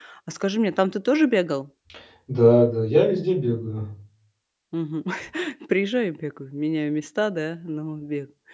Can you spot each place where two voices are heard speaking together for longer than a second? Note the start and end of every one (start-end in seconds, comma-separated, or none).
none